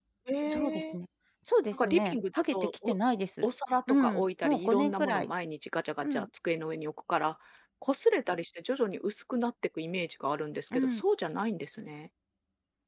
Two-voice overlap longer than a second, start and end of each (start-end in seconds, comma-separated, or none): 1.7-3.0, 3.9-5.3